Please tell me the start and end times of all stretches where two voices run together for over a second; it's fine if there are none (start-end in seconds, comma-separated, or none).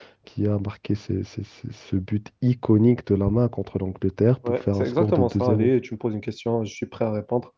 4.5-5.7